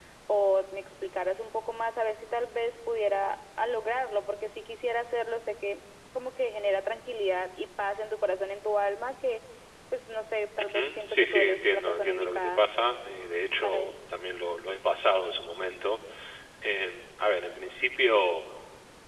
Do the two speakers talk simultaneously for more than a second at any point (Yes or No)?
Yes